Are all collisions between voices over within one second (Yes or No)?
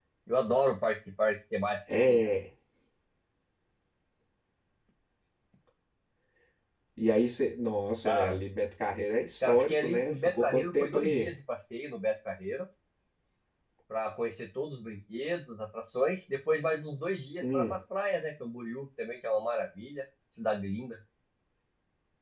No